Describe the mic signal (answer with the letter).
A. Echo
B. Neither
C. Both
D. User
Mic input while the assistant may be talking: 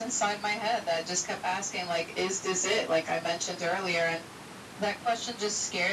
A